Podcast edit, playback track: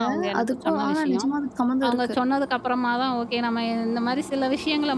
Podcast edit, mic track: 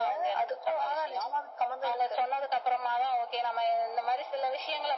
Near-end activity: none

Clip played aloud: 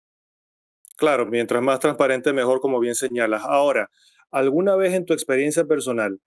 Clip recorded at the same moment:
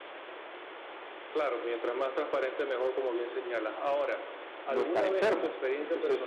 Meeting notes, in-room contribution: present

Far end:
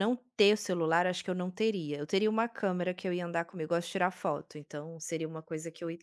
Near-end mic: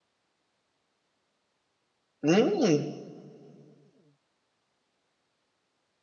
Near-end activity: present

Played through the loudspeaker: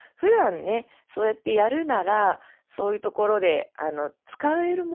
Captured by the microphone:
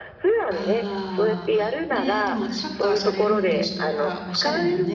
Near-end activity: present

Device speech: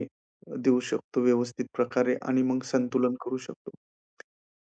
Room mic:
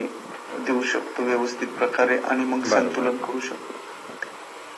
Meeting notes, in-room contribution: present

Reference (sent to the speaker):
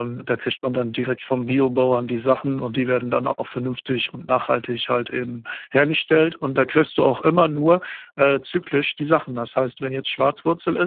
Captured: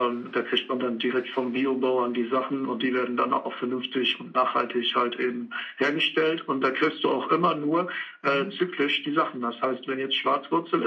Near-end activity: present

